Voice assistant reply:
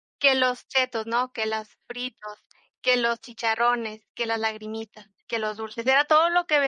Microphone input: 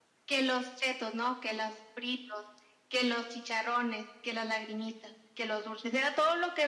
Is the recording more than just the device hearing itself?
No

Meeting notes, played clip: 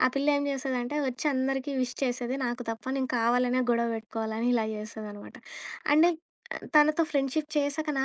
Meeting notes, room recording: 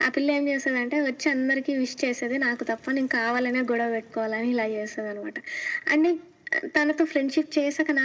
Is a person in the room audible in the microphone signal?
No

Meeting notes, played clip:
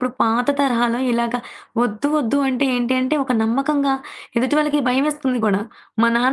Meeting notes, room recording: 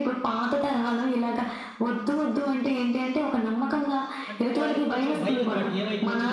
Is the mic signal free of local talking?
No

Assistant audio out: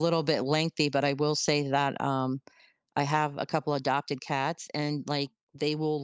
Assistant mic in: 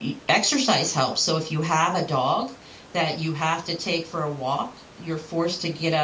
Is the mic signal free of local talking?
No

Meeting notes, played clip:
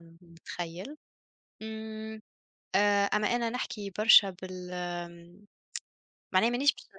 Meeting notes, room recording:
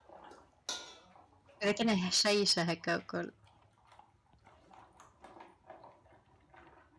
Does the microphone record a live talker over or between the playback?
Yes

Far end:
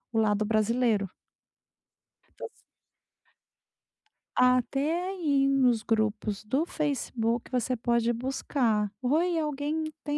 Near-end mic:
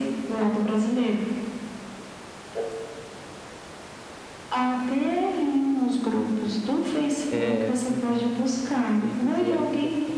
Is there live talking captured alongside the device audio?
Yes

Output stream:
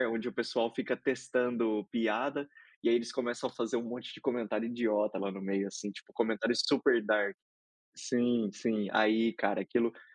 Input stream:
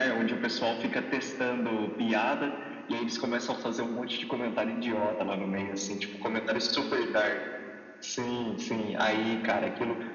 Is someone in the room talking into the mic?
No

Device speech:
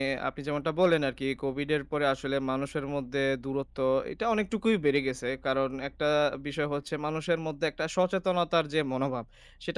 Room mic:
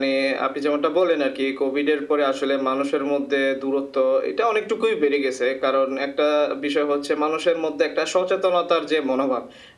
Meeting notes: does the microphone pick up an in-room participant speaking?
No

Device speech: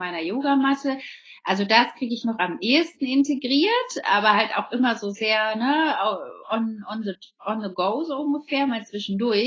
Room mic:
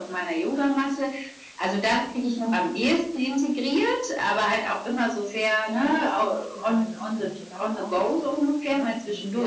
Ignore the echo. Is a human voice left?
Yes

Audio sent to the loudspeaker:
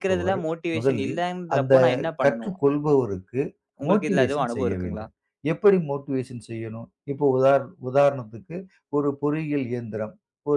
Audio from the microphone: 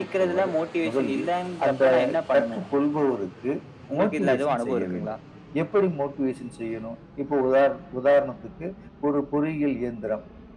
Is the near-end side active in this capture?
No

